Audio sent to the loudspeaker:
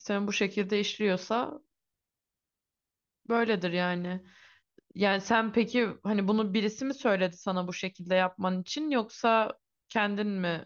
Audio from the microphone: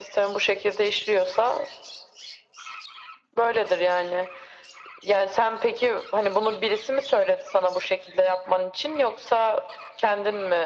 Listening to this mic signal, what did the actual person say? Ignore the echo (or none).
none